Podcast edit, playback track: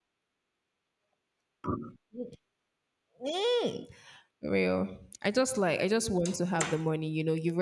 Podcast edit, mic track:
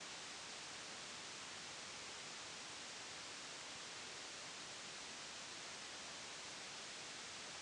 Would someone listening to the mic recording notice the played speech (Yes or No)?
No